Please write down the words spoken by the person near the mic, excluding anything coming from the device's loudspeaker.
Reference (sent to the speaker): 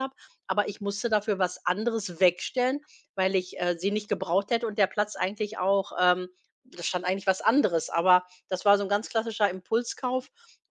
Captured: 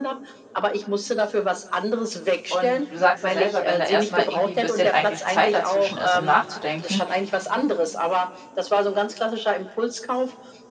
Und du sagst ja selber, wenn da erst mal irgendwie ein bisschen eigentlich Zeit dazwischen ist, um nachzudenken,

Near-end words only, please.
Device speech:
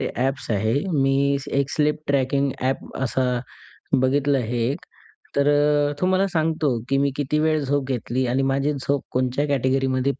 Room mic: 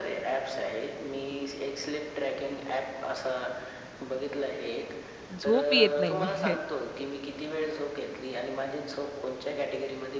झोप येत नाही म्हणजे.

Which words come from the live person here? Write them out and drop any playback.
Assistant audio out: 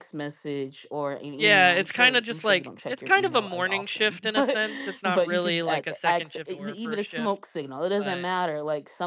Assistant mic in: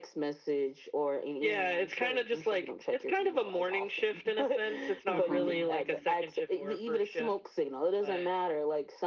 Mhm.

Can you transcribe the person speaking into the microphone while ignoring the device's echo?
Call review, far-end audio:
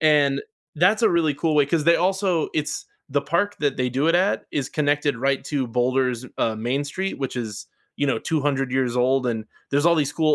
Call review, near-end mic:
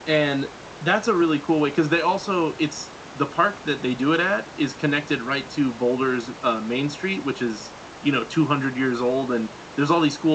none

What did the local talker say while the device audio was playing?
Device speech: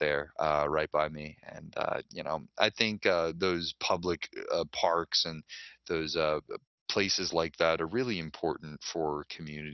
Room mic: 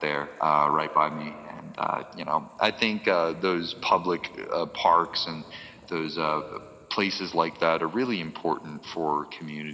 none

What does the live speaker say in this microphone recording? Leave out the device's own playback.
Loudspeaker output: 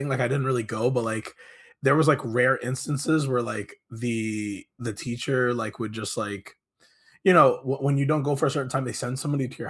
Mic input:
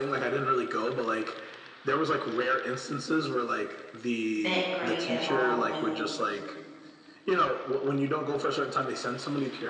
that great at all when

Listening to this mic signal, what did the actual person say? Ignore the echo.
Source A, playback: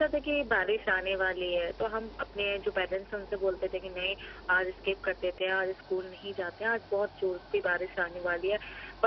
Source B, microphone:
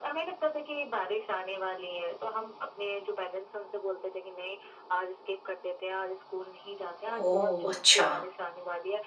ओह! अच्छा।

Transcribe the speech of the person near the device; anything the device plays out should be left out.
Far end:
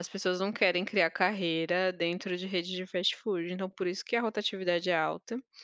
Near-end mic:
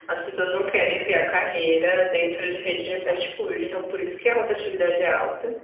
Exato,

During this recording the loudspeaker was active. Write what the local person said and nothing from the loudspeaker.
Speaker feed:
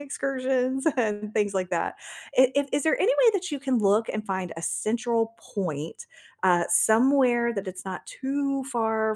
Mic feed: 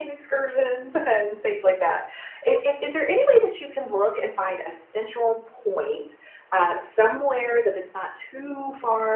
none

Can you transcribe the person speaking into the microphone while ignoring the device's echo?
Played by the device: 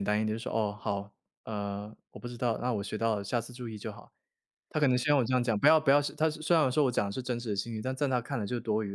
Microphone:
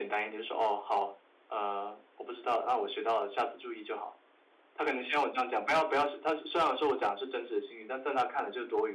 none

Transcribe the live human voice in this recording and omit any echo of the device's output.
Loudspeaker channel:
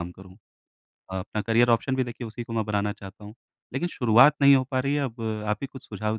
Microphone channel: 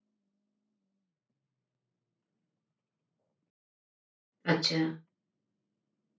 अच्छा।

